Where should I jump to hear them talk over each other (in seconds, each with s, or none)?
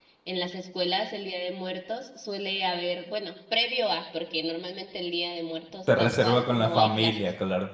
5.9 s